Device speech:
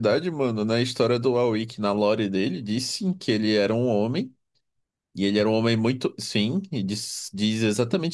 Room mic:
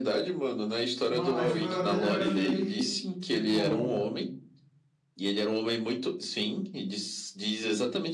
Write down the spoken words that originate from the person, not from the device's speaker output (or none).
Mano, a história dele eu achei, tipo,